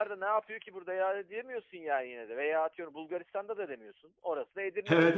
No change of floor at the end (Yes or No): No